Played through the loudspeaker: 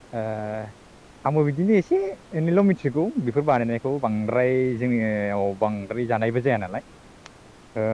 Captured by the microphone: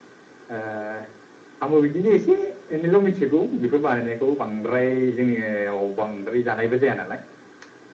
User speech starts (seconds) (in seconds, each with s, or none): none